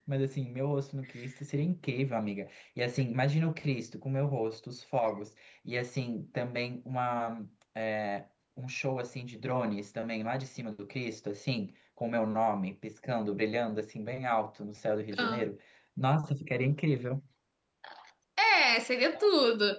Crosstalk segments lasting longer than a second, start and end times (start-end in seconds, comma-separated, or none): none